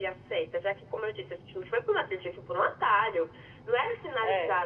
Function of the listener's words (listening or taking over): listening